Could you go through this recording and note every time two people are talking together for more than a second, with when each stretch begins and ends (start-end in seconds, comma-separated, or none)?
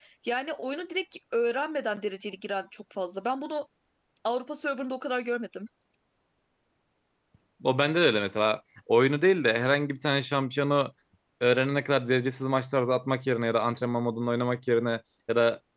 none